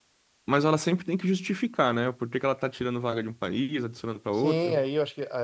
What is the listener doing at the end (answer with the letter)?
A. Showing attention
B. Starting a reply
B